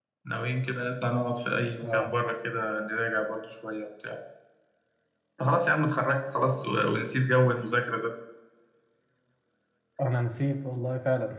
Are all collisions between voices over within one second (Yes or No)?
Yes